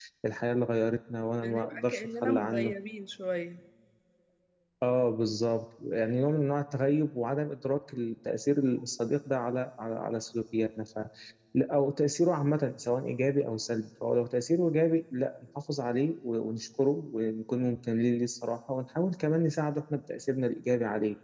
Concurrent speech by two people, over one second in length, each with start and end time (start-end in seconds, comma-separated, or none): 1.4-2.7